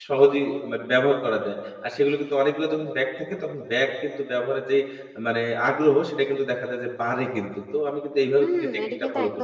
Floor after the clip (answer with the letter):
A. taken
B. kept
A